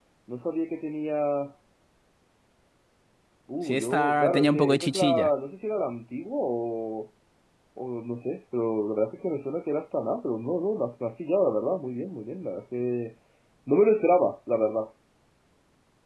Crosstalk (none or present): present